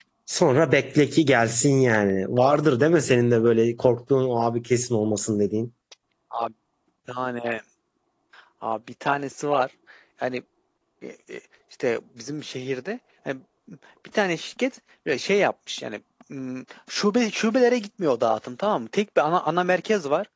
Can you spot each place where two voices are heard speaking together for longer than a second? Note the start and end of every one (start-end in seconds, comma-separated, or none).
none